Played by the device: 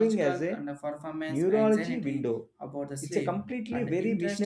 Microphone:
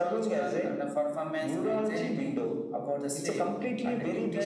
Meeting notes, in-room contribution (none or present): none